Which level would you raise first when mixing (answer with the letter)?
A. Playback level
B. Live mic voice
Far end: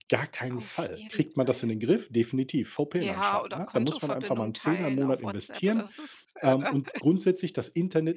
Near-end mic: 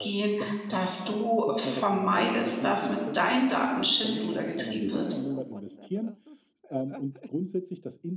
A